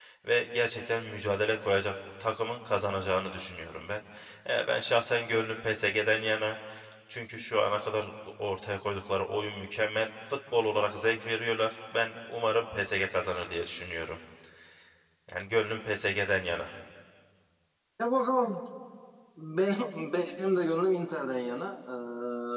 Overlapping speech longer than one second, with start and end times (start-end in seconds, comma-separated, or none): none